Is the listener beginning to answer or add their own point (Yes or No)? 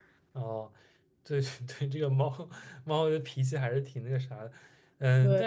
No